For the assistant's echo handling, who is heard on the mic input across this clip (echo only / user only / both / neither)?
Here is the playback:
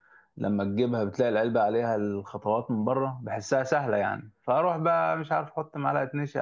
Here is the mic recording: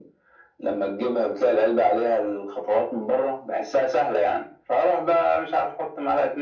echo only